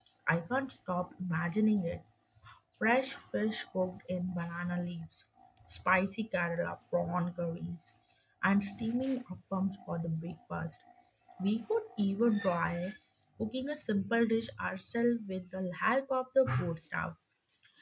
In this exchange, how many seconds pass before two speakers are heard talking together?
none

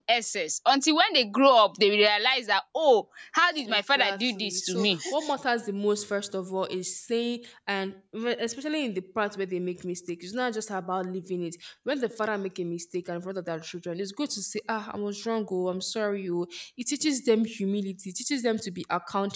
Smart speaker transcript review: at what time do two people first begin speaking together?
4 s

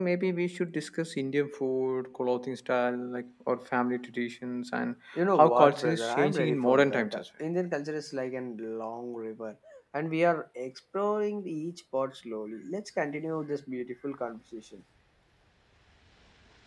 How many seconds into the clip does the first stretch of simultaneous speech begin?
5 s

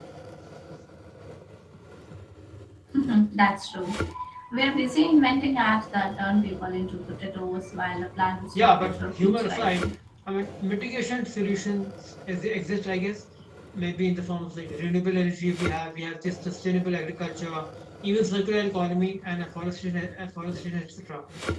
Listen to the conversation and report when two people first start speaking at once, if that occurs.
9 s

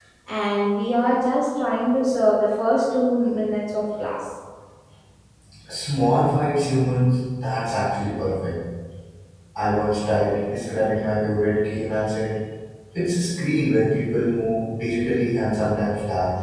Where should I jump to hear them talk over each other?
none

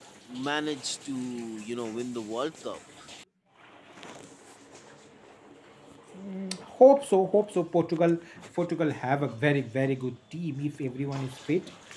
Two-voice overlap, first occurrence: none

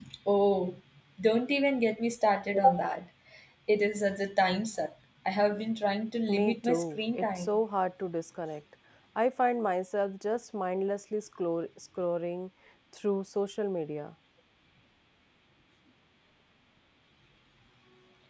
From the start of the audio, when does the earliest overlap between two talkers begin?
6 s

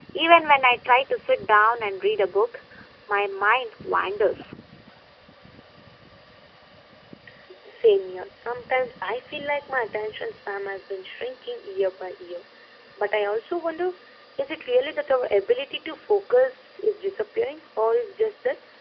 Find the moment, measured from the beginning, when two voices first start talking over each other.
none

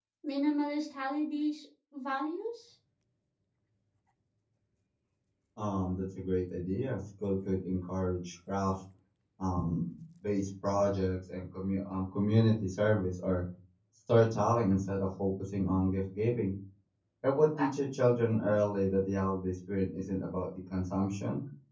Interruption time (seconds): none

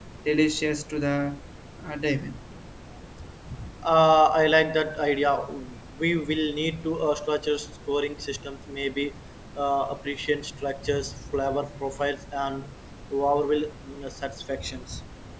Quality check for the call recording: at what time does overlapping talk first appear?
none

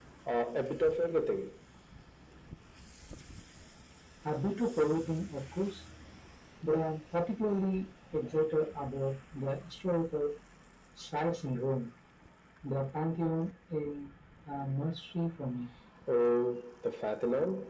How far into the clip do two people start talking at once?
none

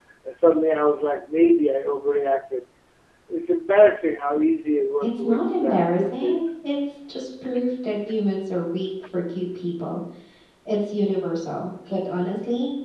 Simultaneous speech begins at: 5 s

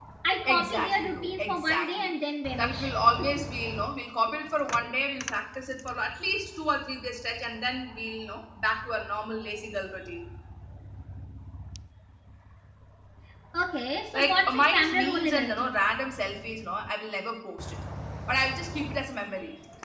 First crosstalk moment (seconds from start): 1 s

